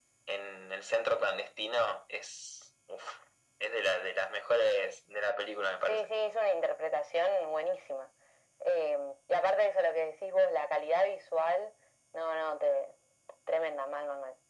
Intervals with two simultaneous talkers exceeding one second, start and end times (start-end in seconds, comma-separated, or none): none